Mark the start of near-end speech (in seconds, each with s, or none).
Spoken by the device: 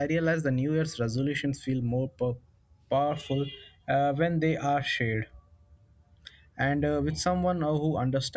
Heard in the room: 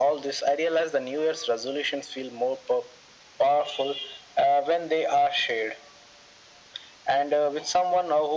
none